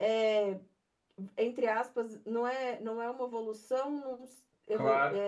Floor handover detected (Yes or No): No